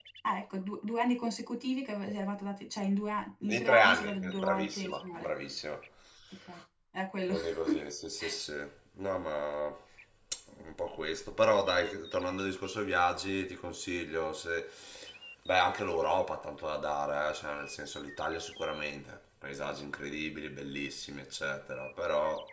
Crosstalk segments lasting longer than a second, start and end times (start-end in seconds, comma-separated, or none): 3.5-5.3